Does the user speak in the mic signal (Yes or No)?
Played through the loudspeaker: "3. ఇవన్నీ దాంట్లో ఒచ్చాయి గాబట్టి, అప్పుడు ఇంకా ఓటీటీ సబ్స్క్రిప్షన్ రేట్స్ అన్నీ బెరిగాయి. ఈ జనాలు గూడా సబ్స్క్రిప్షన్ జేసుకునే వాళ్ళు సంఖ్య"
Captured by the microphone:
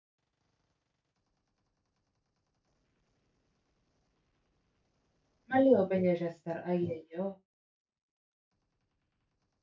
Yes